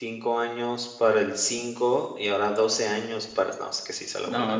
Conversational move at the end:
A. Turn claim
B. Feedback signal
A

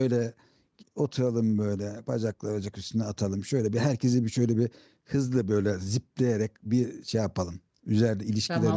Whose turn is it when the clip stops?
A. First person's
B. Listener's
B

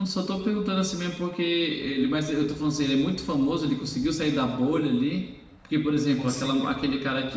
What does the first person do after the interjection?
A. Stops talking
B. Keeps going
B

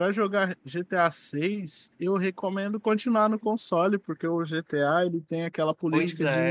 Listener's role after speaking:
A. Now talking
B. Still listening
B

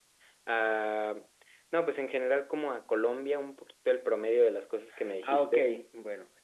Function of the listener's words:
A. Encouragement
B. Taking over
B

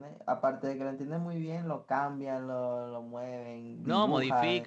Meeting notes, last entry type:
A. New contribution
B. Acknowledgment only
A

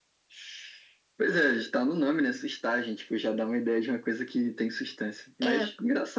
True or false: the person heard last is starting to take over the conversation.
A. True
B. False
B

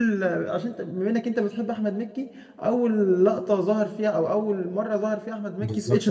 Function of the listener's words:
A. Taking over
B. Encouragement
A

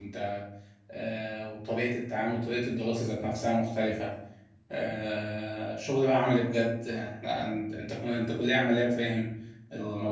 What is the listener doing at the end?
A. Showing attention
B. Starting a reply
A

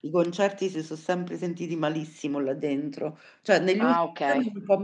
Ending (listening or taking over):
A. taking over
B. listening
B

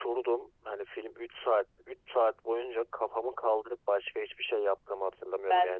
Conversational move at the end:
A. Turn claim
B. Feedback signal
B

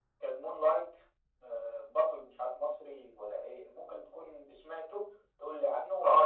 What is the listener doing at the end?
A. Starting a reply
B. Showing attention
A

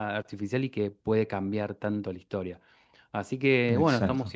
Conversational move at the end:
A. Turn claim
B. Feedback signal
B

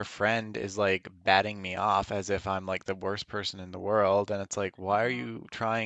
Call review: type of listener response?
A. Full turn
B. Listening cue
B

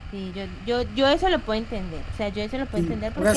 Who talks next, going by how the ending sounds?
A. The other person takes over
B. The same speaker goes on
A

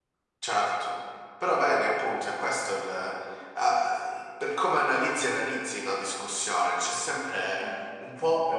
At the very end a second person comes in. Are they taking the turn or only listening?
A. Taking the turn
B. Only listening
B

